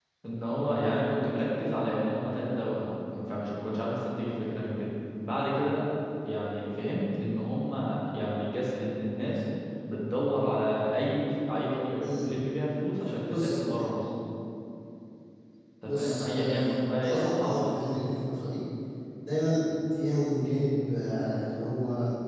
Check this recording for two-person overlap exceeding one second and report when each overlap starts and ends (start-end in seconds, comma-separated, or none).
15.8-17.8